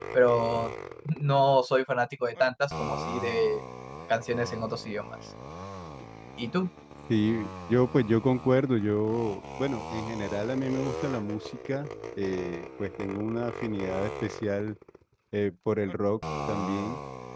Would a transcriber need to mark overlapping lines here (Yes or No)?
No